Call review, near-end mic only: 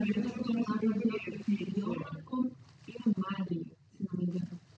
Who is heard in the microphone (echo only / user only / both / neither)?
echo only